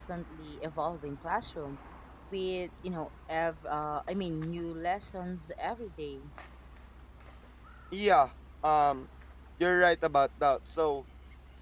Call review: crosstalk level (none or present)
none